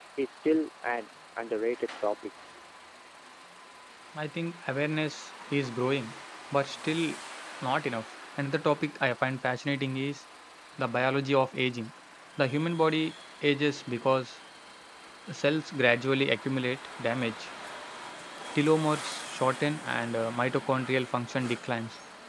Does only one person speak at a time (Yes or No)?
Yes